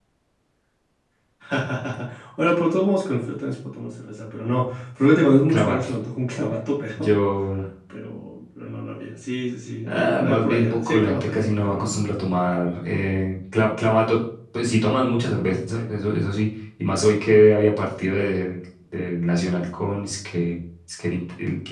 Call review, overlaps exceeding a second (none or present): present